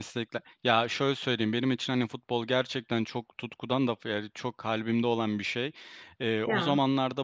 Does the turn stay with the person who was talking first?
Yes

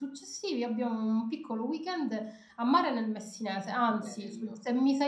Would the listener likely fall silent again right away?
Yes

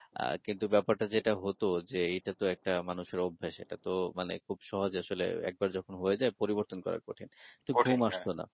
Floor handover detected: No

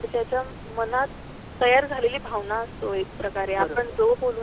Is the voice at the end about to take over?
No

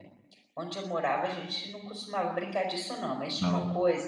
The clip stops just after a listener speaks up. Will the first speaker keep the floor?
Yes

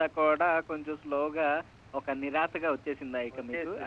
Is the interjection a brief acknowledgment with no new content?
No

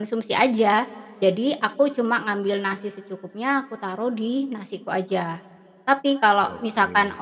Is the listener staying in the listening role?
Yes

